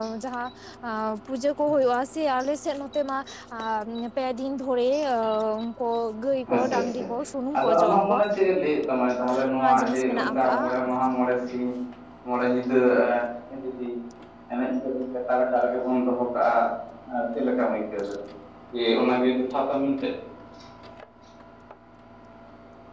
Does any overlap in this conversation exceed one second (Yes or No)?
Yes